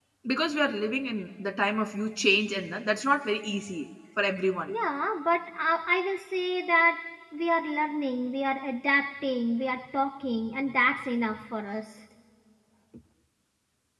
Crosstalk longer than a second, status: none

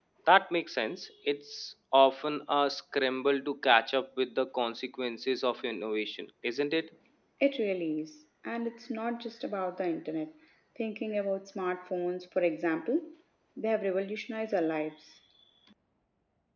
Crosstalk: none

